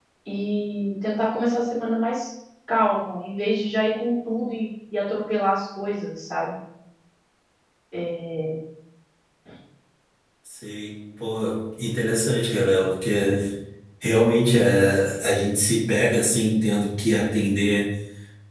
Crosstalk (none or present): none